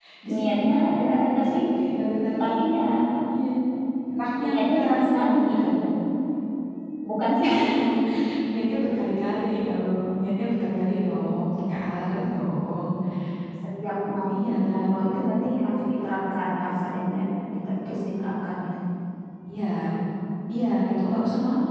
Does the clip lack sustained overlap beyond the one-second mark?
No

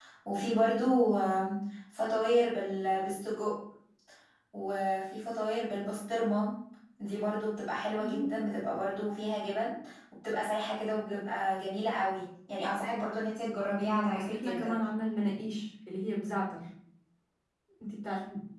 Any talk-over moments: Yes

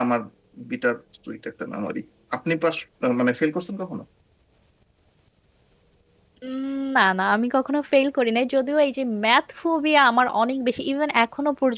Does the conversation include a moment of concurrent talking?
No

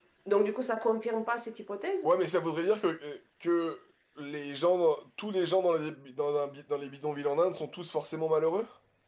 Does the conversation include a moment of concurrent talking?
No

